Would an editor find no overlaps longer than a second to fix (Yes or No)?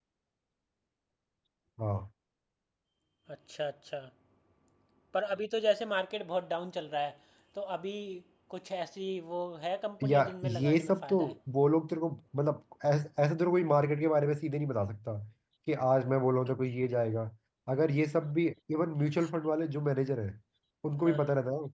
No